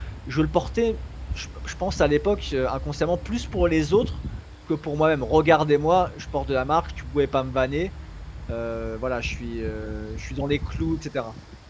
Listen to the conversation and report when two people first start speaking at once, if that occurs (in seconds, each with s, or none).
none